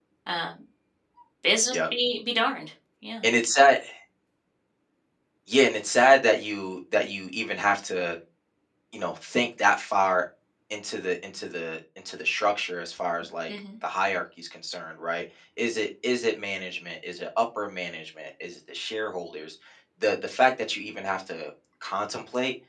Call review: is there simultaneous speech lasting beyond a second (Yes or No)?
No